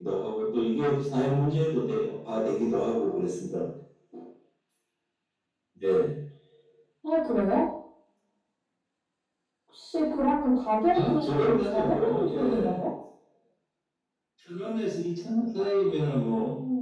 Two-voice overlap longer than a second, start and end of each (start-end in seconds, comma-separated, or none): 10.9-12.8